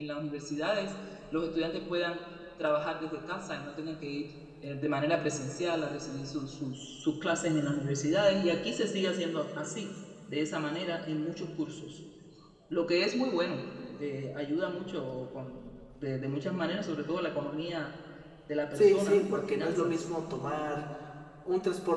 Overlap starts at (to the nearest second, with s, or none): 19 s